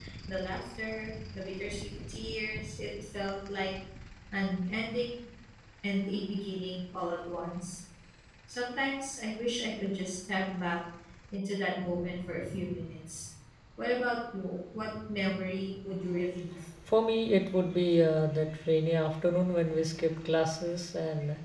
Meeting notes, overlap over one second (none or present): none